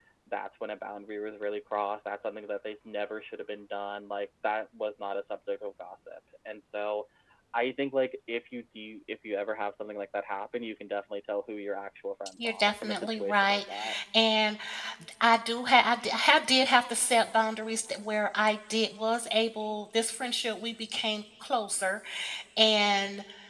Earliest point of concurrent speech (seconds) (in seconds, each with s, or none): 12.4 s